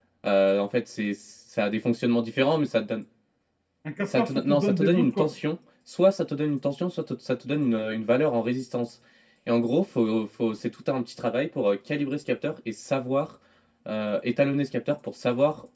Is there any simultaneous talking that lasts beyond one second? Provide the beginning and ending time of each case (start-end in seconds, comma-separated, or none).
4.1-5.3